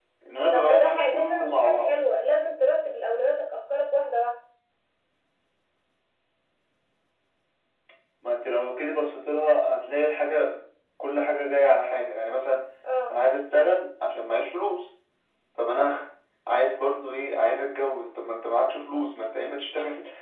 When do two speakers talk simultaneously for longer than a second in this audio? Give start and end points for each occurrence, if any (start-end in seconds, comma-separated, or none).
0.5-2.0